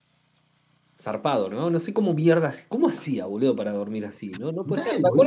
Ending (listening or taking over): listening